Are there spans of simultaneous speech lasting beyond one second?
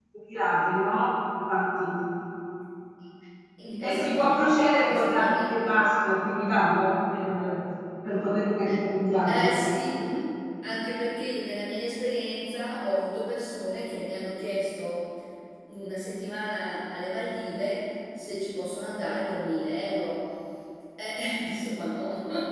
Yes, from 3.8 s

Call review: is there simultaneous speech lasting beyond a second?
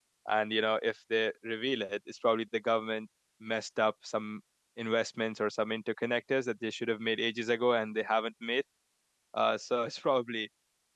No

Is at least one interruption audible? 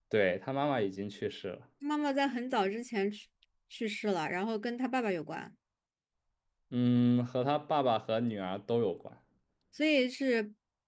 No

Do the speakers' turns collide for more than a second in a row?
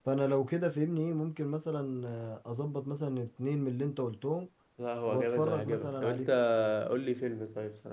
Yes, from 5.1 s

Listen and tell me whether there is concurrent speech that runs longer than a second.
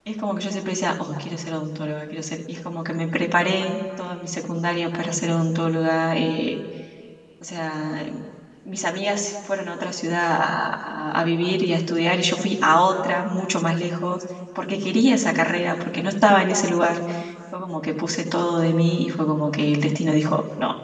No

